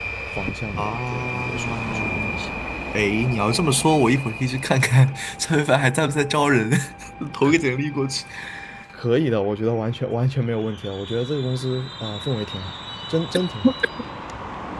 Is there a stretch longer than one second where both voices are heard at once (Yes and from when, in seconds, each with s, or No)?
Yes, from 0.8 s